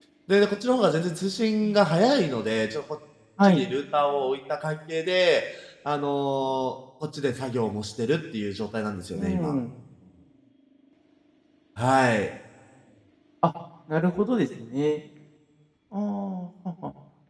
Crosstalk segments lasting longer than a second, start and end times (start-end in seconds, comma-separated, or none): none